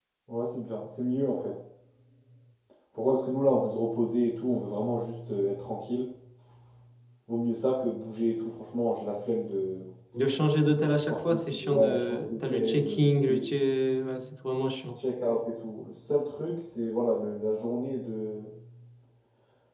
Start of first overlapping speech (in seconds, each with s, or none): 10.7 s